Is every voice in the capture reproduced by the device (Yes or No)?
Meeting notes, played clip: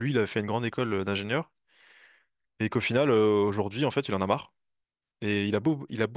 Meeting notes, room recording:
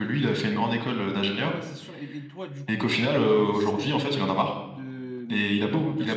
No